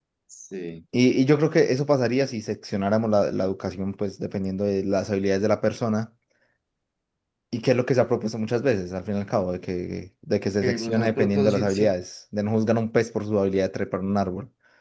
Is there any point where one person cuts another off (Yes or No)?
Yes